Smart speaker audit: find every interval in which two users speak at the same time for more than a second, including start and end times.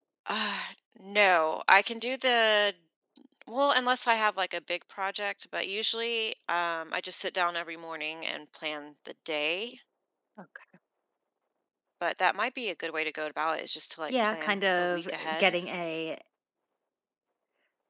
14.1-15.6

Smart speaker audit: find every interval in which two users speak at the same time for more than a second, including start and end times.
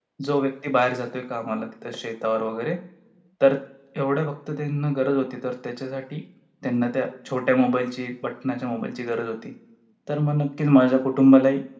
none

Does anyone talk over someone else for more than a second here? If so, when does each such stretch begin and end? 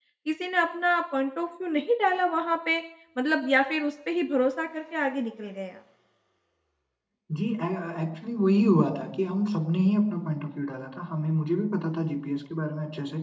none

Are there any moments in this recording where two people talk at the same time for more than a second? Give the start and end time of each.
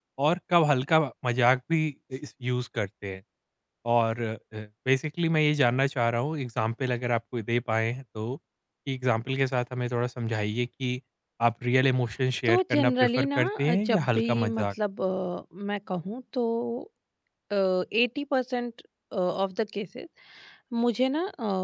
12.5-14.7

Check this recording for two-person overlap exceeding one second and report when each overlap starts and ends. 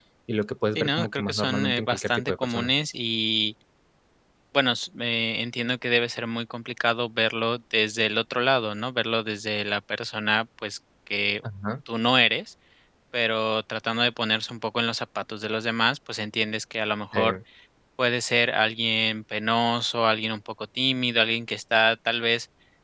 0.8-2.7

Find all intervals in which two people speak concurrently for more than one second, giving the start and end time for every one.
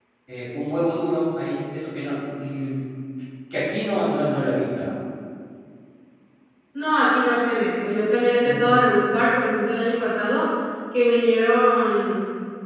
none

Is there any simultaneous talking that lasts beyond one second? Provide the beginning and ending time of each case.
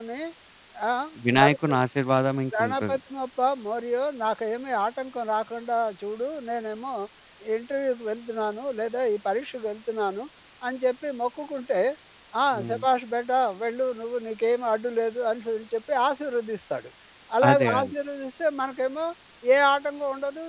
none

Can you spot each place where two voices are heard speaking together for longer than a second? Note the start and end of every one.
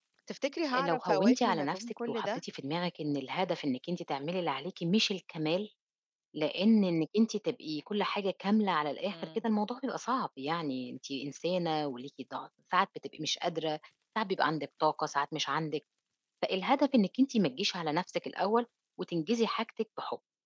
0.8-2.4

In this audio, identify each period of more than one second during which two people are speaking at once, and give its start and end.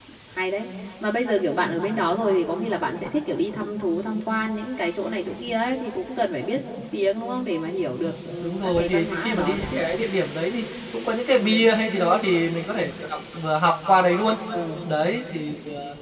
8.4-9.8

